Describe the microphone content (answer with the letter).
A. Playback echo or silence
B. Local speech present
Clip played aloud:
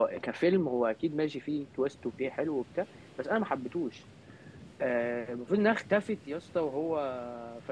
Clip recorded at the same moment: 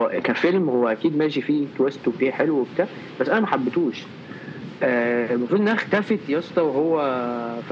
A